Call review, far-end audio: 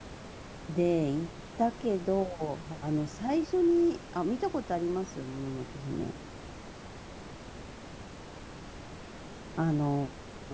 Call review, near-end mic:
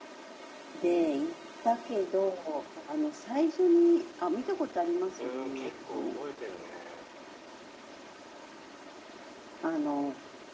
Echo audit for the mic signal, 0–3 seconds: echo only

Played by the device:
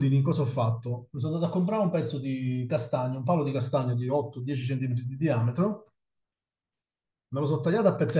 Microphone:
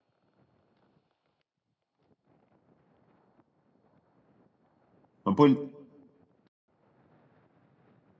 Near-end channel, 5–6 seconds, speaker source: user only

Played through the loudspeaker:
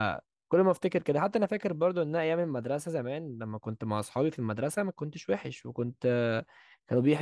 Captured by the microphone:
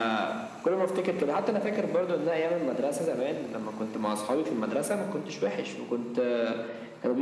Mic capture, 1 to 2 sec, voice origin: echo only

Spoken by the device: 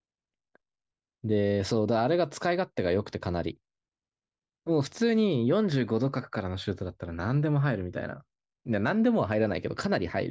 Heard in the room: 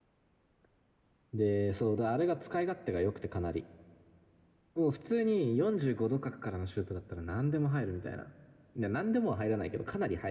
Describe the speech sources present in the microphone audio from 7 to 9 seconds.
echo only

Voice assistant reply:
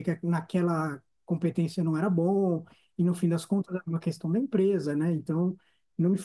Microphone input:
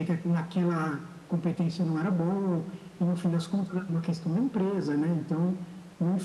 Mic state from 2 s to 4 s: echo only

